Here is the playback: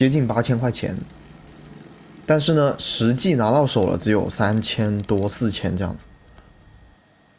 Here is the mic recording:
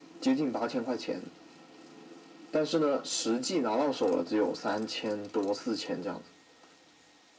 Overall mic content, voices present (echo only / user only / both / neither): echo only